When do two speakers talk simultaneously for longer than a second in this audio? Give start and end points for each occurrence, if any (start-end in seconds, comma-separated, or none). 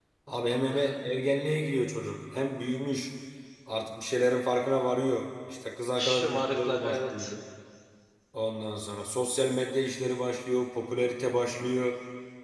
6.0-7.3